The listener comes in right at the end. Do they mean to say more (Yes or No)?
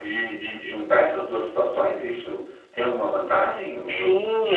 Yes